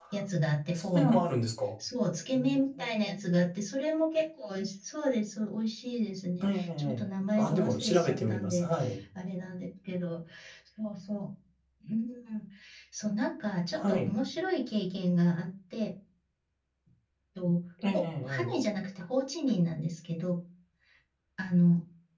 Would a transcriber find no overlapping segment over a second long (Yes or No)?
No